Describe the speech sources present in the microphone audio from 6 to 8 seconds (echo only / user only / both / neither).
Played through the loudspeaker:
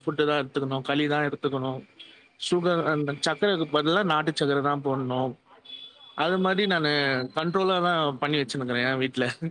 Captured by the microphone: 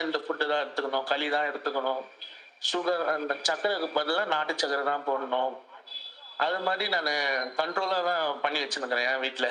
echo only